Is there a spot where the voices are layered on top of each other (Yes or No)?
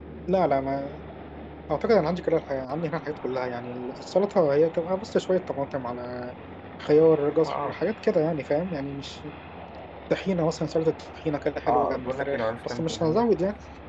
Yes